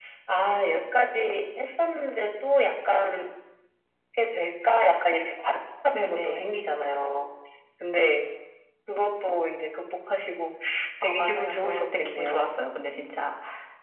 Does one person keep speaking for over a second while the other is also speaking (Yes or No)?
Yes